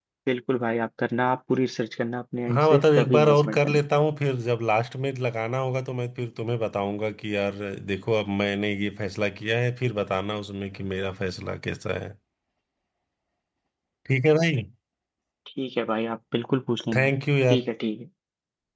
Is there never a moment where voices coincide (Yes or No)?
No